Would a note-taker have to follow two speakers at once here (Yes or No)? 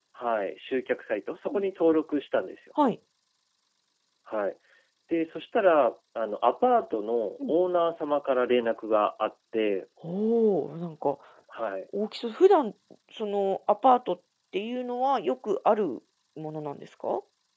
No